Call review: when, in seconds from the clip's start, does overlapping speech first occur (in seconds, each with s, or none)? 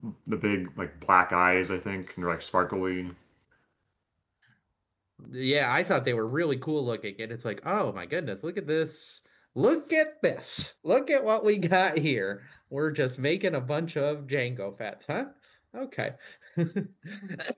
none